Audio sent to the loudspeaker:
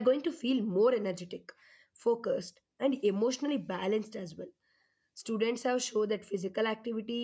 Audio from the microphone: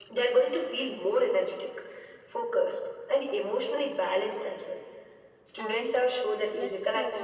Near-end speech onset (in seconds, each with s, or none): 5.6 s